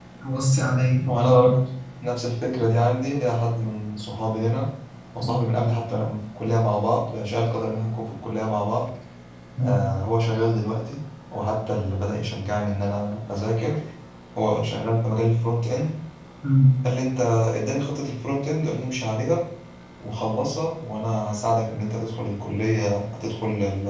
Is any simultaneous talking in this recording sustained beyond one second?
No

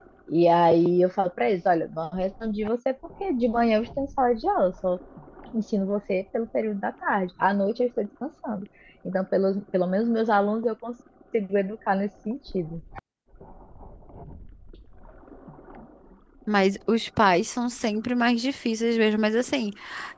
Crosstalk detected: No

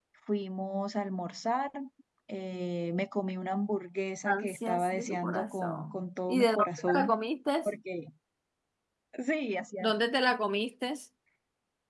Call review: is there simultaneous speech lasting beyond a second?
Yes, from 4.3 s

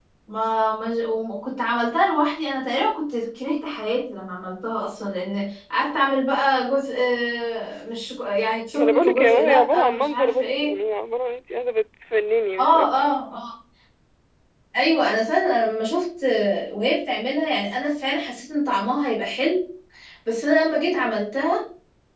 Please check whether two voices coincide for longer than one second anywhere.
Yes, from 8.7 s

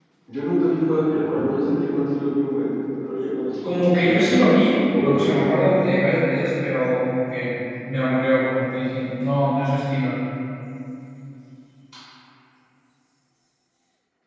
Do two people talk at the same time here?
Yes, from 3.6 s

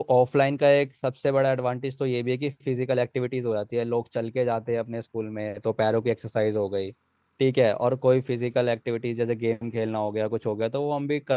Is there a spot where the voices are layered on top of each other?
No

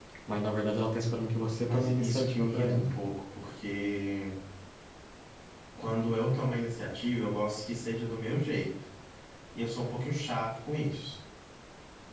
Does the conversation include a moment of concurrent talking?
Yes, from 1.7 s

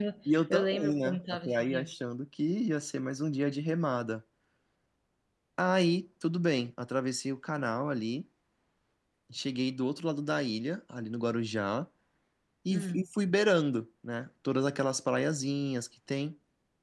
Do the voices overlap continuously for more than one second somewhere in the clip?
Yes, from 0.5 s

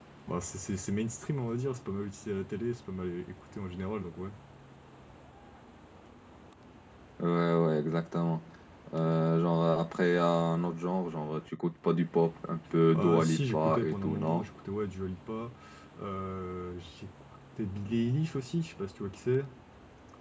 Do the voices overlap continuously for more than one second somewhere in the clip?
Yes, from 12.9 s

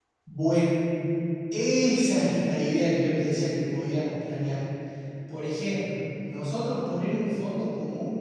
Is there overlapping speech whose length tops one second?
No

